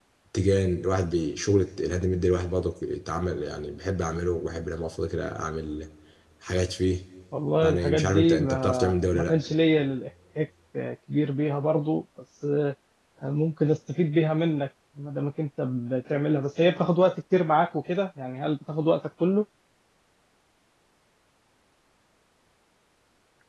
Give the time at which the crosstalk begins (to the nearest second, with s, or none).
8 s